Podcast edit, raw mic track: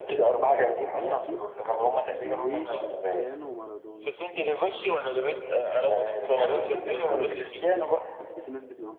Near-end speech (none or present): present